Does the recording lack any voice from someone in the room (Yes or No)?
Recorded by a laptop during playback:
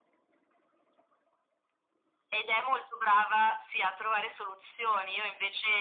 Yes